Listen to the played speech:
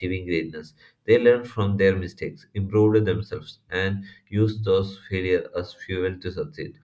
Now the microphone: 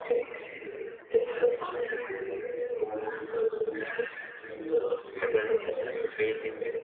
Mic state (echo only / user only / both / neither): both